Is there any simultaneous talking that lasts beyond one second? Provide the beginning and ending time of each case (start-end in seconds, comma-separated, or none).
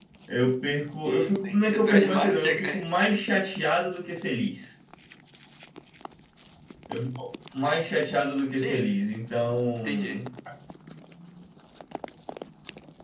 1.0-2.8